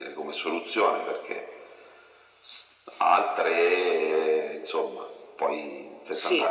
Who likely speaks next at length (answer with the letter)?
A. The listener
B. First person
B